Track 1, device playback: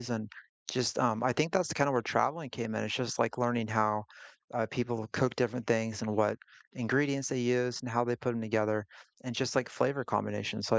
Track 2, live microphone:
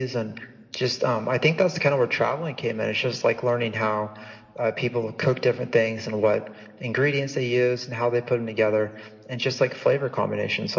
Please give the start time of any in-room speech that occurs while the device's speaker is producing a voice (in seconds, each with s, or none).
none